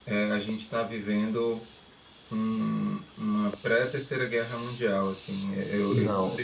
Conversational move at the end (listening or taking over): listening